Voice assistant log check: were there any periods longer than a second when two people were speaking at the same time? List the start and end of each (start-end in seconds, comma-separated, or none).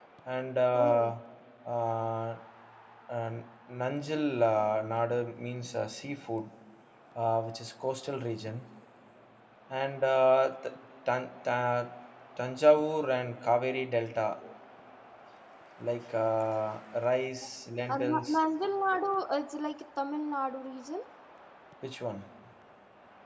none